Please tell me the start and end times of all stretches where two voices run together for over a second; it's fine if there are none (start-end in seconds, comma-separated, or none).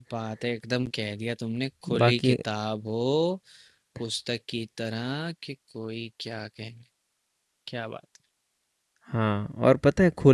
none